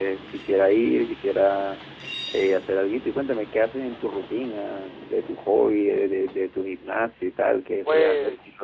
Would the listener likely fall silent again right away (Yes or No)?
No